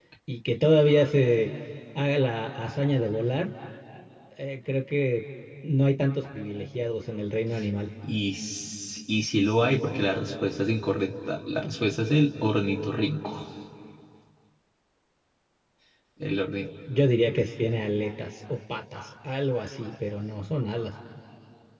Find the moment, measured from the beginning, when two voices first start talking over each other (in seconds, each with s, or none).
none